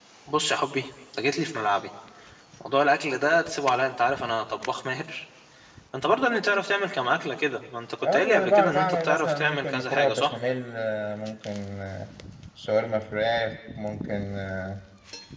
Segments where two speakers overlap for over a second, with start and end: 8.1-10.4

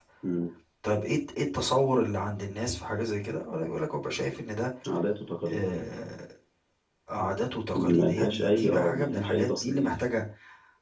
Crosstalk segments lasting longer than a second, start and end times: 8.0-9.9

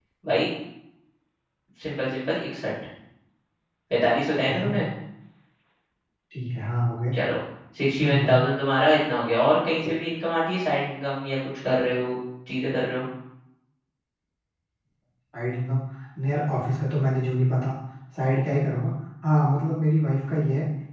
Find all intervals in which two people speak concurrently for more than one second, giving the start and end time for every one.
none

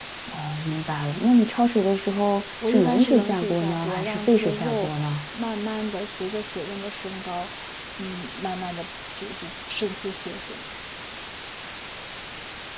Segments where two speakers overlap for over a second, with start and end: 2.7-4.9

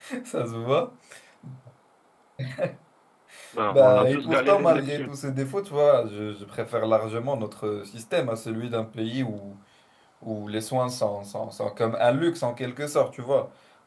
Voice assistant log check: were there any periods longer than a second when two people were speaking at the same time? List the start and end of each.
3.7-5.1

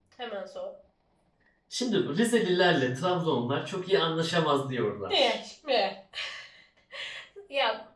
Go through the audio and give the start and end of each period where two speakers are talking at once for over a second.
none

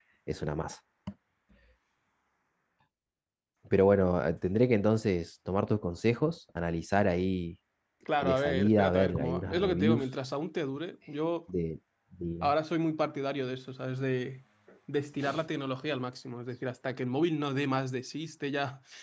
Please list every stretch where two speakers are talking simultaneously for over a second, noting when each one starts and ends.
8.2-10.1

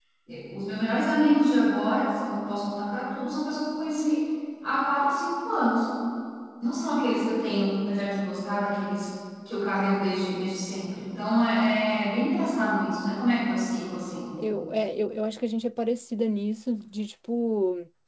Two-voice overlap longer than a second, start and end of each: none

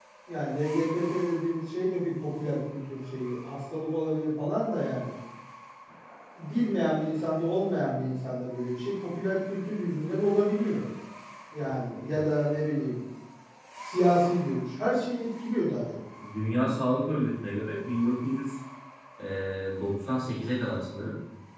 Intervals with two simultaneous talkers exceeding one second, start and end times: none

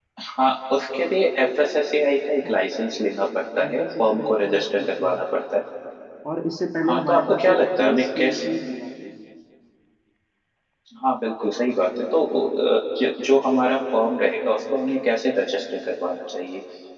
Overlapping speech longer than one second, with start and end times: 3.7-5.2, 6.9-8.5

